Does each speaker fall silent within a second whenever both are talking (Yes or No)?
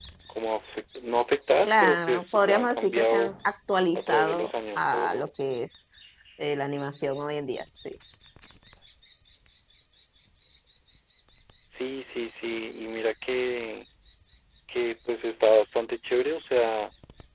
No